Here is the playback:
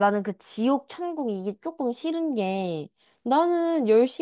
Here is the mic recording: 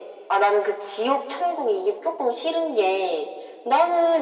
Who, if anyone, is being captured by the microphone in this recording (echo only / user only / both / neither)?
echo only